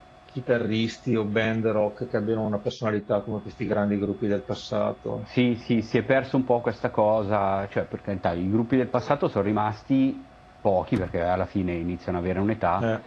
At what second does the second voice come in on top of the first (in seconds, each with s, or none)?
none